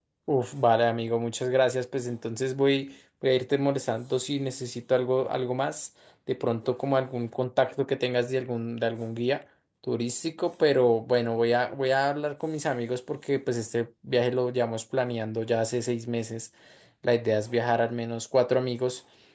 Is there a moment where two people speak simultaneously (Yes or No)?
No